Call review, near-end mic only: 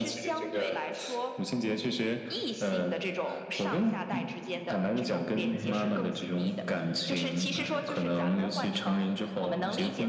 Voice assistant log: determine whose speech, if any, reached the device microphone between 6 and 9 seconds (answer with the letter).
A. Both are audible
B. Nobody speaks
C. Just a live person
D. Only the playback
A